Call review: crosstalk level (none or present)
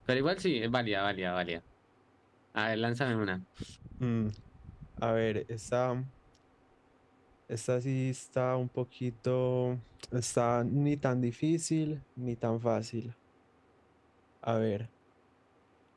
none